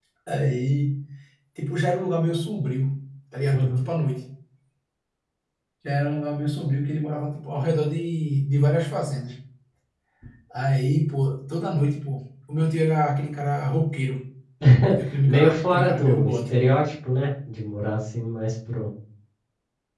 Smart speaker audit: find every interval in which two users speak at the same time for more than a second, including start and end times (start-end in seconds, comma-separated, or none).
15.3-16.6